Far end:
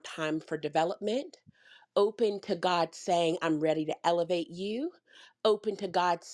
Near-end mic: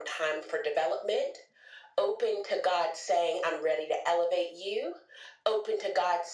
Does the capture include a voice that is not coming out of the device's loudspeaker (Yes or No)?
No